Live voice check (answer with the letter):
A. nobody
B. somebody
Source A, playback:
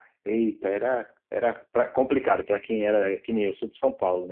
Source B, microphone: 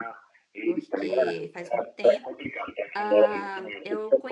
B